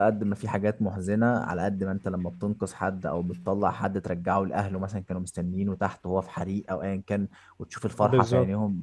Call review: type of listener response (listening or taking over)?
listening